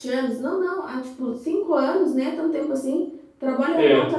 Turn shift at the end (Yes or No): No